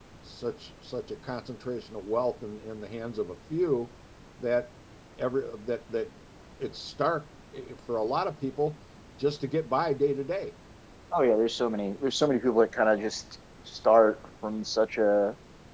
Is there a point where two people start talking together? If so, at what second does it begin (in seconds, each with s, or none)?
none